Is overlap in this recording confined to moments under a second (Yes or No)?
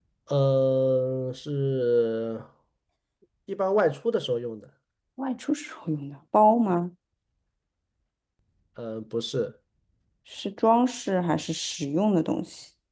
Yes